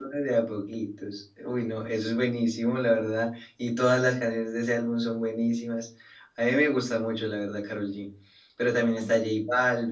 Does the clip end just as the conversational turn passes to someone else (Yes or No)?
No